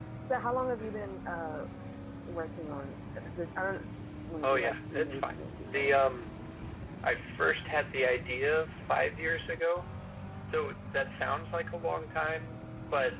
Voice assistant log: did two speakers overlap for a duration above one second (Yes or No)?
Yes